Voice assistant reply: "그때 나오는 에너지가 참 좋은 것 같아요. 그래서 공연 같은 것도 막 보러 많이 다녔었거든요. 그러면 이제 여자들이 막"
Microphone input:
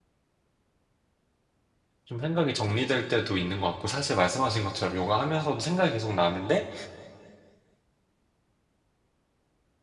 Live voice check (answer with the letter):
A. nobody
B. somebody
B